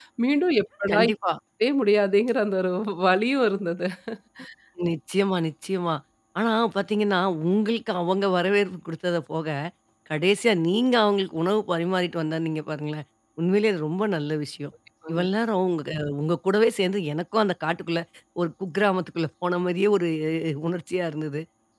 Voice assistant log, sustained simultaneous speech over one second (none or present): none